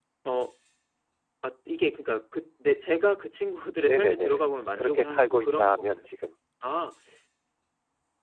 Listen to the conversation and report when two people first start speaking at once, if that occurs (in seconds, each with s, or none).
3.8 s